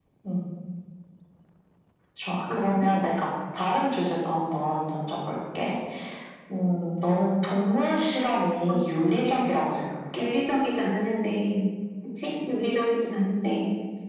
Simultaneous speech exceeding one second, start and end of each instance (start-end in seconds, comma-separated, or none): none